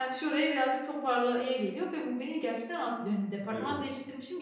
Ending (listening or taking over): listening